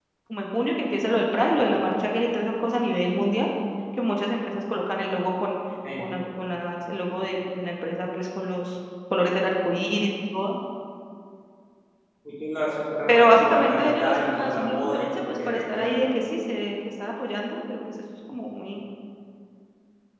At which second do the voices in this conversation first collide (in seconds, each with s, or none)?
13.1 s